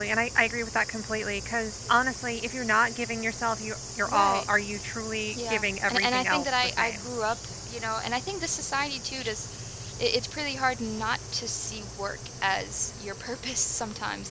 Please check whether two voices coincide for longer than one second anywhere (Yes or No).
Yes